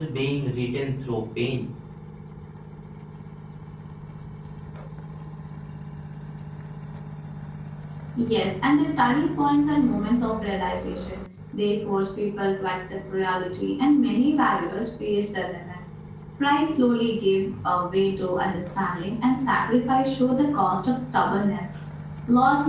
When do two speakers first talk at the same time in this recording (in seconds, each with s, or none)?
none